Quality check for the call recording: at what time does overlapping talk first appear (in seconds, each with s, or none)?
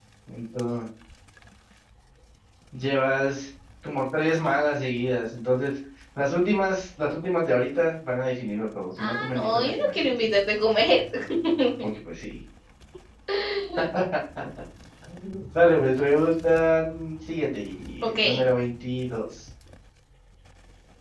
9.0 s